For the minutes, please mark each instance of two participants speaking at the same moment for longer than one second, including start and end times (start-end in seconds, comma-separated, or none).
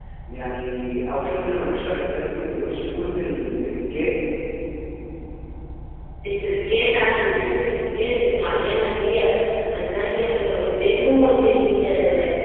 none